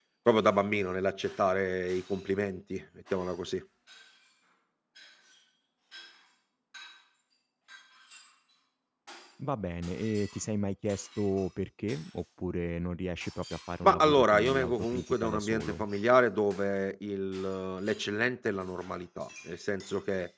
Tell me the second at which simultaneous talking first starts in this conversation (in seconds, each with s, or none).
13.8 s